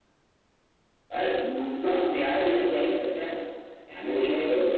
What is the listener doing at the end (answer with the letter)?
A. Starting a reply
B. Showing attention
A